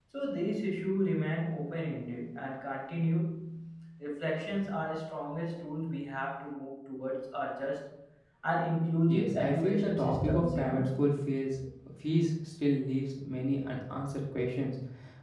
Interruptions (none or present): present